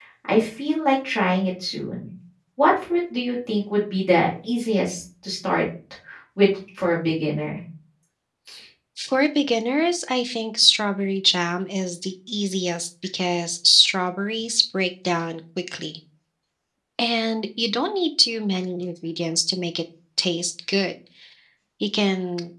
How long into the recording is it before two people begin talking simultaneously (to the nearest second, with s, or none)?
none